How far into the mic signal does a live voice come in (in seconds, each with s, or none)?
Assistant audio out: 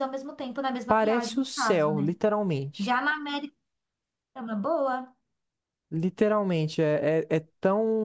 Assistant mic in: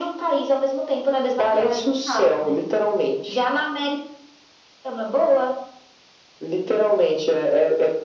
none